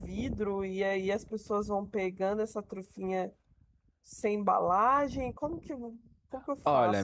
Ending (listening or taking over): taking over